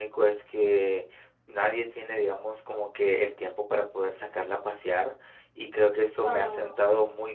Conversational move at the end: listening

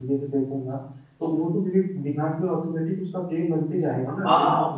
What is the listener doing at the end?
taking over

